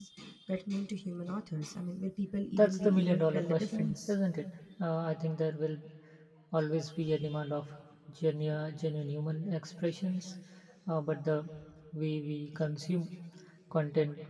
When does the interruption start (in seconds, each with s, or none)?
2.5 s